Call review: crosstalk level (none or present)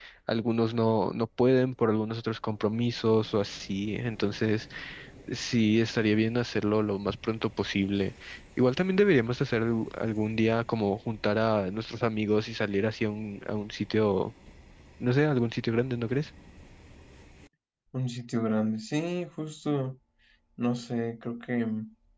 none